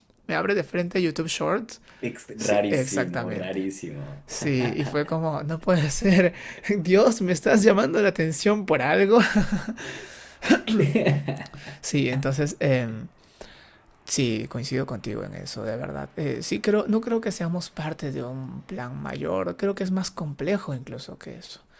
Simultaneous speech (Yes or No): Yes